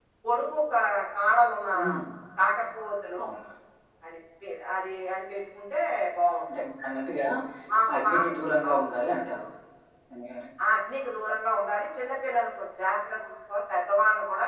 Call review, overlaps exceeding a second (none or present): none